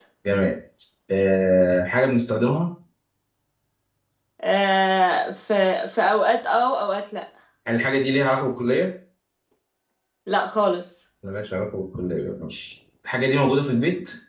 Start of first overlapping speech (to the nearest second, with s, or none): none